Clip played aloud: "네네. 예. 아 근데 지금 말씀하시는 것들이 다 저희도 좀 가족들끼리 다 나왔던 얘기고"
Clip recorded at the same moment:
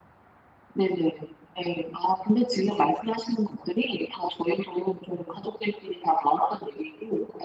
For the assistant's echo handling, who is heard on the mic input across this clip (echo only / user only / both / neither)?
echo only